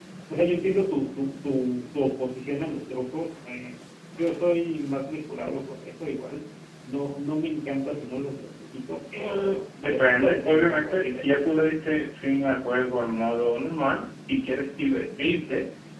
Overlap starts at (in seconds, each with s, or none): 9.1 s